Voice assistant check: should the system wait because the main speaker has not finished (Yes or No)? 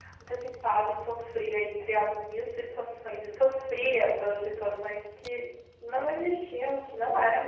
Yes